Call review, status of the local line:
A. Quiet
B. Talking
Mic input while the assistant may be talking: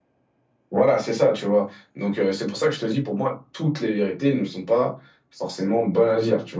A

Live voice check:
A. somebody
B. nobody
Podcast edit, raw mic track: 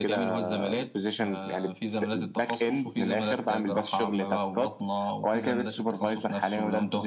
B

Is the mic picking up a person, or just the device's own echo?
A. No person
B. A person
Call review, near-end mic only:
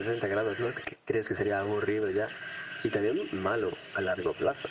A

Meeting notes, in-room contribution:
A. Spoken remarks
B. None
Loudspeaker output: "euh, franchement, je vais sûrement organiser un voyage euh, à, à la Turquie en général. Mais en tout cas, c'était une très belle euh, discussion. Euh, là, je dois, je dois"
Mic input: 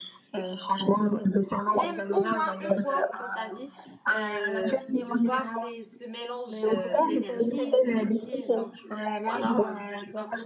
A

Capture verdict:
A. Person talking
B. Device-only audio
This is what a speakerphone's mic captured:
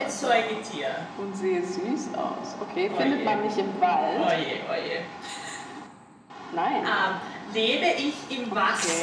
A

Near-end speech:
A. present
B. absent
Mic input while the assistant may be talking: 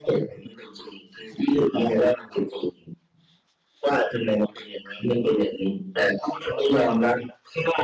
B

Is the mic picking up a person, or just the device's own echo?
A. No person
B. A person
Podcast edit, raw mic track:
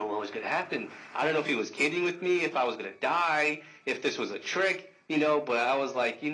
A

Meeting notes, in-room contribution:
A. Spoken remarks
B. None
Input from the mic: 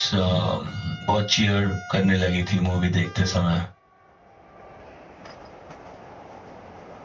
B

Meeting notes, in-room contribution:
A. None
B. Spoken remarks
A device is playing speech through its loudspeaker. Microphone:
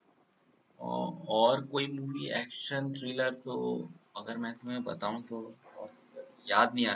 B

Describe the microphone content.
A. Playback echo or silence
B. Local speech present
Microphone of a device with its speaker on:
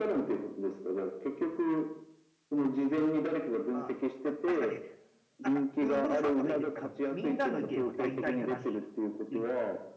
B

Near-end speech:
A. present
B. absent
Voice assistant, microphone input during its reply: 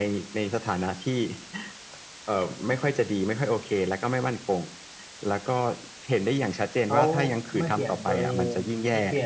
A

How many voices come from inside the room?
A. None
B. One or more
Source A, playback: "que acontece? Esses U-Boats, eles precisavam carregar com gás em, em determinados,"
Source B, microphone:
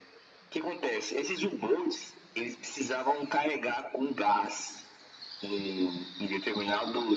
A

